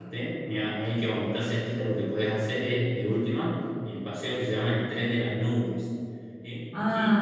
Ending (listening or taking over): listening